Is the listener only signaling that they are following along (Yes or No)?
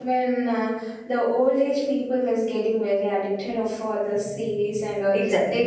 No